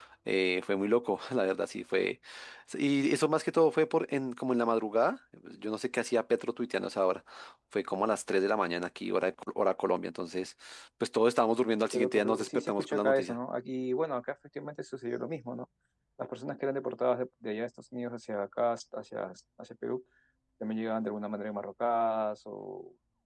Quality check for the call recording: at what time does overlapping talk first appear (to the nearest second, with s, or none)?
12 s